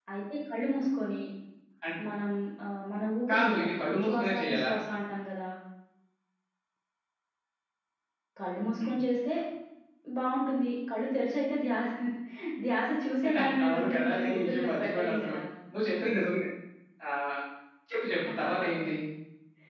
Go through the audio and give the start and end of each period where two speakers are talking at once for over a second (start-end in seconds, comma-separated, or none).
3.3-4.7, 13.6-15.3